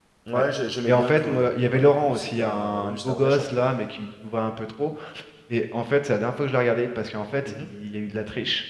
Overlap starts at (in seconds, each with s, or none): 0.8 s